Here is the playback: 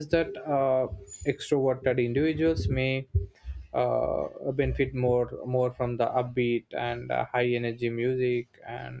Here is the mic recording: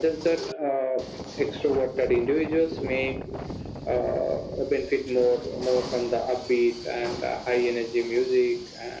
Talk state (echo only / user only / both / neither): echo only